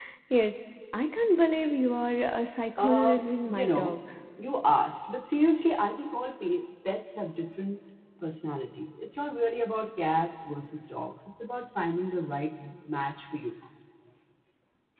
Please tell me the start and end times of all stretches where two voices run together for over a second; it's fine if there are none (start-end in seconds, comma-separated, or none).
2.8-4.0